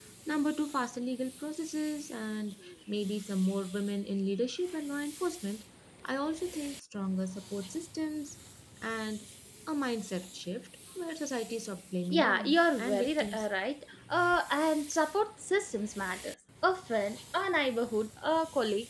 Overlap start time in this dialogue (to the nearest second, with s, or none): 12 s